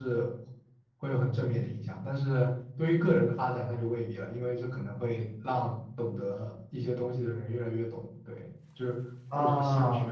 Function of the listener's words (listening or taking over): listening